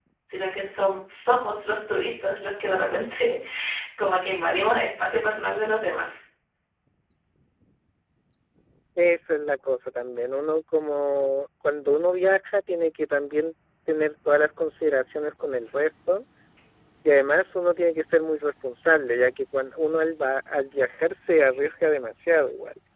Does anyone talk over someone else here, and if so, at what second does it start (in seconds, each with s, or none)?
none